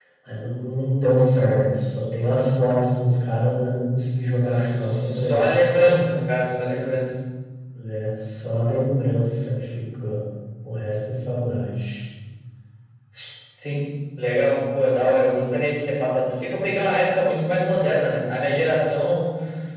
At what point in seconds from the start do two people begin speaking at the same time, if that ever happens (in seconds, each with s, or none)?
4.0 s